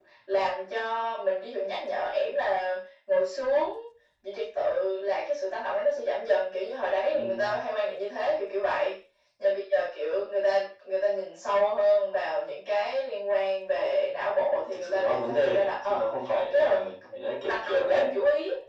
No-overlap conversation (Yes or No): No